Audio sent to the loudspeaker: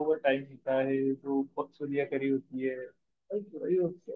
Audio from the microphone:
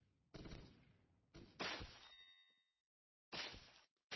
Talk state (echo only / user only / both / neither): neither